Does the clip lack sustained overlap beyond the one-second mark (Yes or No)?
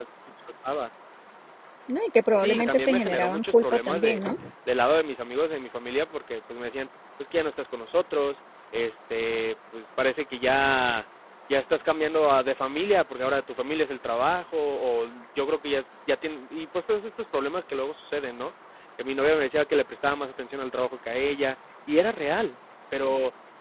No